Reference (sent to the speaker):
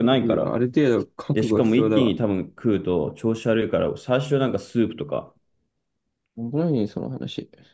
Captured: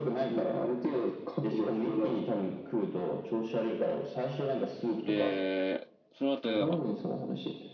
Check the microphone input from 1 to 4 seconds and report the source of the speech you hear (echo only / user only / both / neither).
echo only